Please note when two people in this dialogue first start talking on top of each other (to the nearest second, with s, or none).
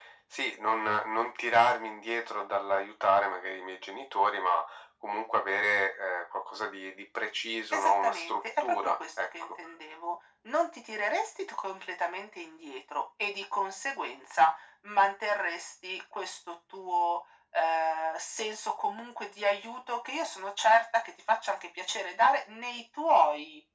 8 s